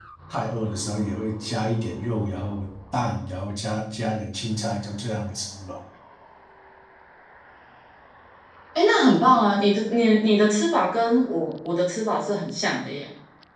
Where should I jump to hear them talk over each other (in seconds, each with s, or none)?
none